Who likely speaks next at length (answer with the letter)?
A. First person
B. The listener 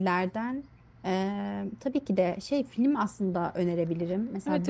B